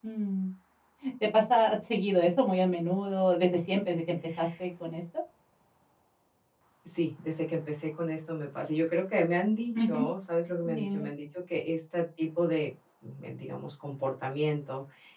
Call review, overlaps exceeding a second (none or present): none